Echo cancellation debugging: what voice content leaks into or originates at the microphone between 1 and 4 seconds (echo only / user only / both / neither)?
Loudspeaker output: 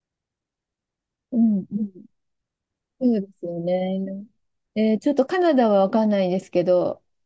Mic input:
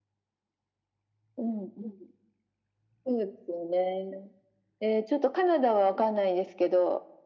echo only